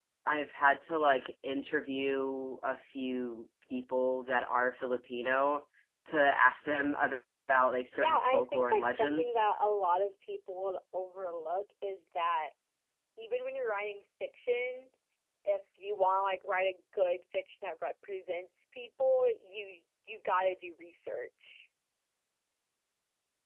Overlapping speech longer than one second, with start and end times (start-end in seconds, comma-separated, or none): 7.9-9.3